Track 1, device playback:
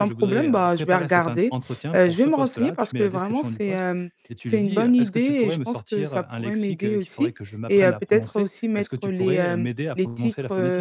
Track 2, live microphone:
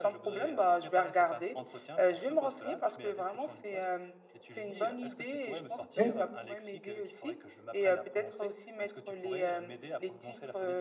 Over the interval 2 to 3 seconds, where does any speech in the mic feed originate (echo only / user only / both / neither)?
echo only